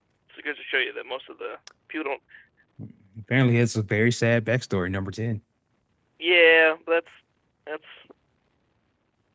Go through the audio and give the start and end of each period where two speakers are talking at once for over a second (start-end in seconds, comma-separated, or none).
none